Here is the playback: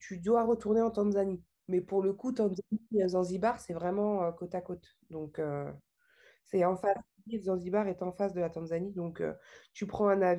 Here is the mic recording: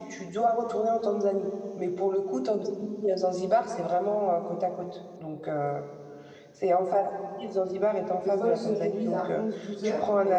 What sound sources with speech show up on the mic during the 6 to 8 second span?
echo only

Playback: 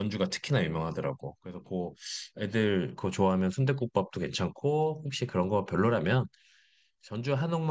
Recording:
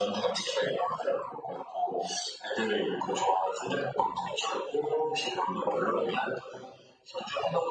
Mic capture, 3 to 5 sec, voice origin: echo only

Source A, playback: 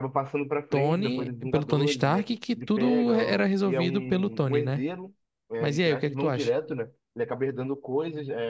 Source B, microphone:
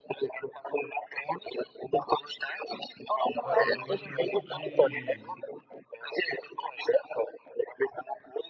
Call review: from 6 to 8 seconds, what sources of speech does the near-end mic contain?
echo only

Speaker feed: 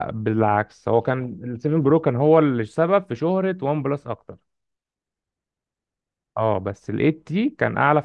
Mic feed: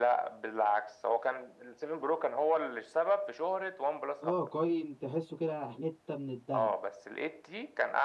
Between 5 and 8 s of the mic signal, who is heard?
both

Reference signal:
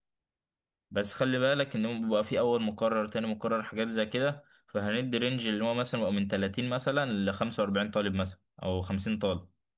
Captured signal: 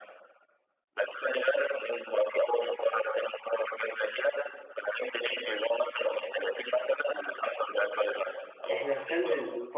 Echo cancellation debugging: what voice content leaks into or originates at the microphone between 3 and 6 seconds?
echo only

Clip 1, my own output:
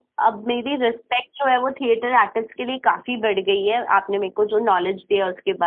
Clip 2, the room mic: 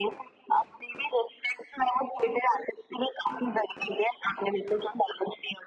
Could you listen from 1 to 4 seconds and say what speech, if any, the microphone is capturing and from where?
echo only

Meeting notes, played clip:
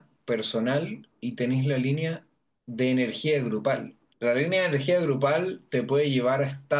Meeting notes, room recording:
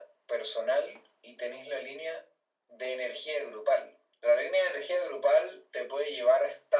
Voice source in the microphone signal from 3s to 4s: echo only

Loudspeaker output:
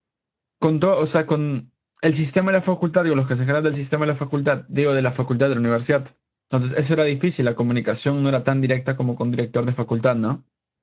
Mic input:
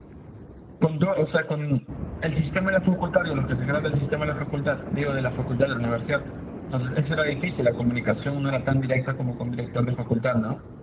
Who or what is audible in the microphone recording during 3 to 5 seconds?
echo only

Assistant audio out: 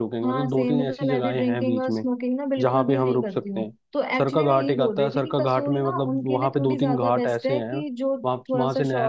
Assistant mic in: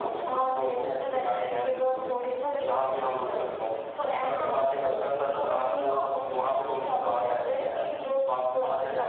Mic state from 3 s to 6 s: echo only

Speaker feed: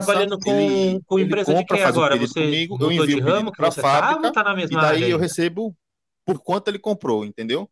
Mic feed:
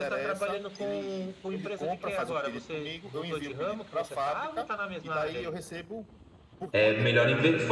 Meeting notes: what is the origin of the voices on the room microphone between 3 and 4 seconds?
echo only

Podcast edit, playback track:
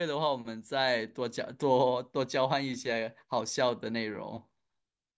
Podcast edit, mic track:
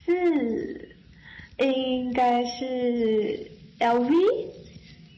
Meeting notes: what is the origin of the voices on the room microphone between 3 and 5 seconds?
user only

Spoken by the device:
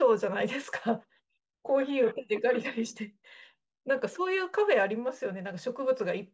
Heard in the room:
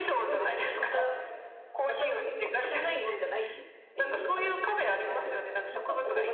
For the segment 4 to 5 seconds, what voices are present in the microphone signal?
both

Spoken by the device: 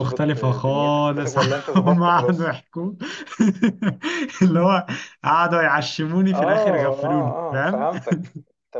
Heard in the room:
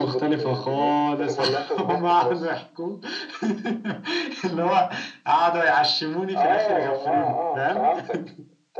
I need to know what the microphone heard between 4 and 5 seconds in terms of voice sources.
echo only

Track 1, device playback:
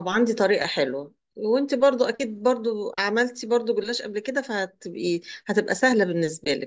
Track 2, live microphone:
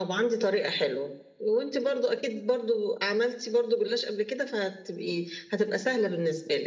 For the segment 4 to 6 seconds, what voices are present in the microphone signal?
echo only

